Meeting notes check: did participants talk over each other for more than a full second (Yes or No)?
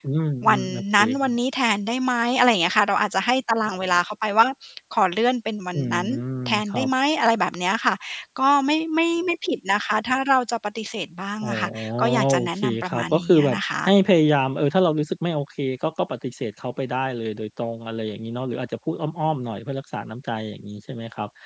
Yes